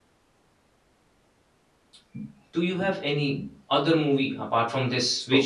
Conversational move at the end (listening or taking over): listening